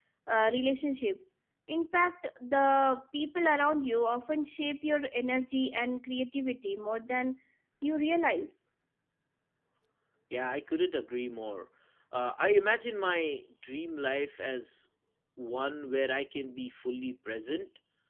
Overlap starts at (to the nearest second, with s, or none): none